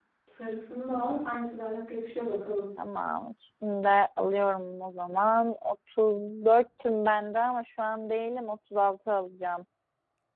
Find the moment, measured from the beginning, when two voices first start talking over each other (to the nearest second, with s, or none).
none